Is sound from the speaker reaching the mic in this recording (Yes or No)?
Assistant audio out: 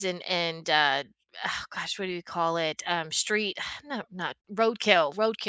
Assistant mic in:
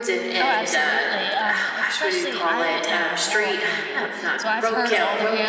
Yes